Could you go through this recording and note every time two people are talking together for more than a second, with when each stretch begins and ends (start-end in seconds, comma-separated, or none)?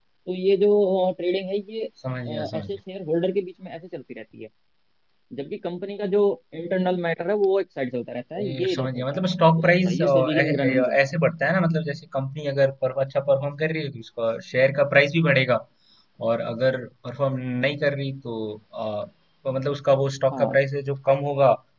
8.4-11.1